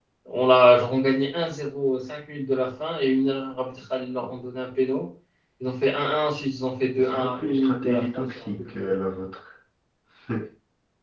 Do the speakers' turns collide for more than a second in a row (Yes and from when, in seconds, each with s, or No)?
Yes, from 7.0 s